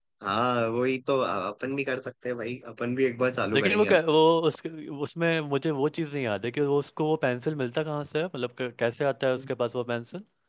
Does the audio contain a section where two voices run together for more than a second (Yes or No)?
No